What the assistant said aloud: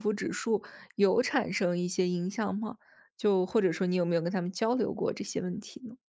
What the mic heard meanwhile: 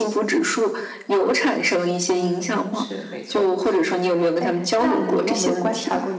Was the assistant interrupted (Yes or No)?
Yes